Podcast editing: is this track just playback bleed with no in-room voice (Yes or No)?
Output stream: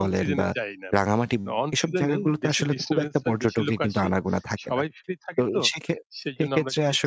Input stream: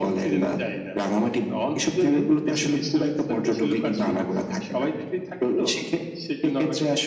Yes